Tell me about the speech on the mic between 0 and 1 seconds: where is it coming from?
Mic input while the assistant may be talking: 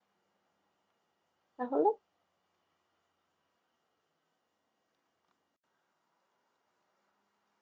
neither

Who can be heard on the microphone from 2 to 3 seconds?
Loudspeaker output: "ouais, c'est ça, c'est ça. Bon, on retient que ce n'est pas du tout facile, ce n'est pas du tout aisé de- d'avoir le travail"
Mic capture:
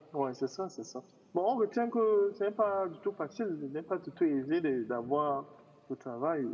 echo only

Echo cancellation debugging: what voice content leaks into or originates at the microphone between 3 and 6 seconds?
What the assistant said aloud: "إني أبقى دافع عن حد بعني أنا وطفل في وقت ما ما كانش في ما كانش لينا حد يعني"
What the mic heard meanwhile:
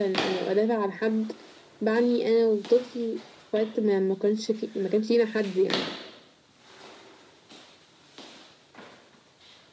echo only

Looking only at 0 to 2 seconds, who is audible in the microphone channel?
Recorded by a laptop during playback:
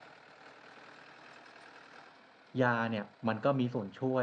neither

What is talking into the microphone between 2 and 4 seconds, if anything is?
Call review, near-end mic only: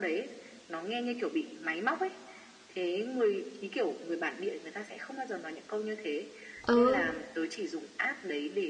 echo only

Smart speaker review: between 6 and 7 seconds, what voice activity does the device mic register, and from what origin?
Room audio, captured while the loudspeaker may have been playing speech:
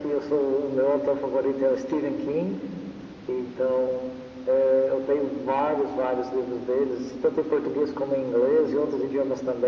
echo only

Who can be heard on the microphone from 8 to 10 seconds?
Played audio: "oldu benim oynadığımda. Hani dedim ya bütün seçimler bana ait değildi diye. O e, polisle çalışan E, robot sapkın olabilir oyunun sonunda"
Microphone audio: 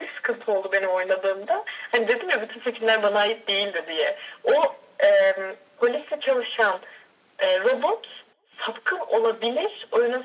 echo only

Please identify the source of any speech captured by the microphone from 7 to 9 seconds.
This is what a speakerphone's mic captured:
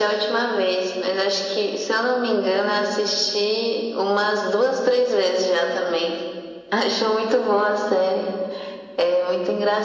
echo only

